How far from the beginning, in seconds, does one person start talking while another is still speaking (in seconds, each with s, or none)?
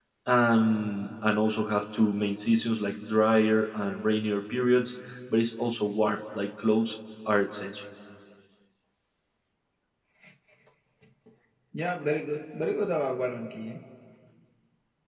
none